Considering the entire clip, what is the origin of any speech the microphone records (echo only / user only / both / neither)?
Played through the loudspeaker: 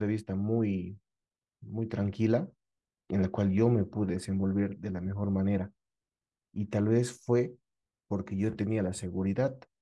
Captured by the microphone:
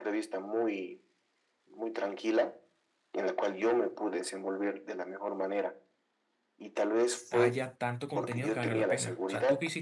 both